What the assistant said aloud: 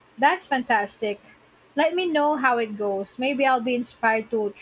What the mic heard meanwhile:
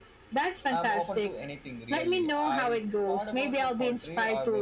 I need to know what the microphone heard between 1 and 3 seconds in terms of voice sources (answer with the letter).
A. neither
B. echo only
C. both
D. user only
C